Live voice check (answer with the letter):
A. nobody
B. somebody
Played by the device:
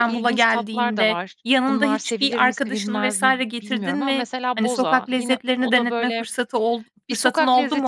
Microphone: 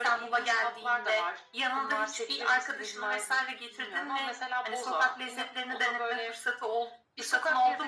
A